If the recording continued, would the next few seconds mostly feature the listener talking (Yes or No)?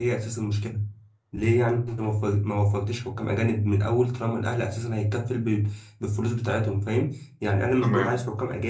No